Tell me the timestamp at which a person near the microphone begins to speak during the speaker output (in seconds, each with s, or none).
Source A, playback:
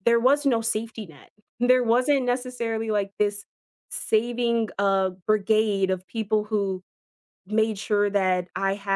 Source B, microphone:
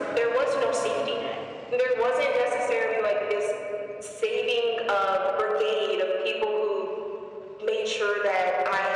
none